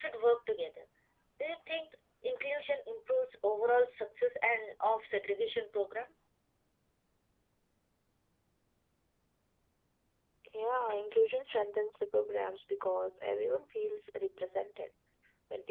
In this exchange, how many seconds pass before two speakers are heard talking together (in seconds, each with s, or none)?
none